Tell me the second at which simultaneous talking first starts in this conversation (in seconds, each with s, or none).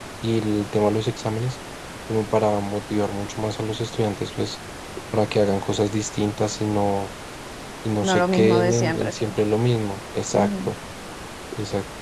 8.0 s